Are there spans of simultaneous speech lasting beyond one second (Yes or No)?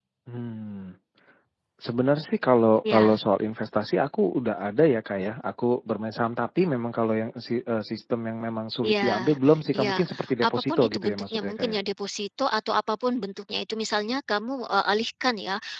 Yes